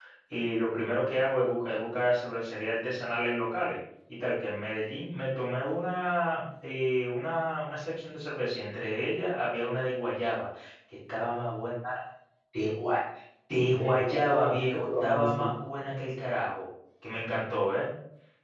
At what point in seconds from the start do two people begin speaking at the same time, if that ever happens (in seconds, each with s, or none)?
13.8 s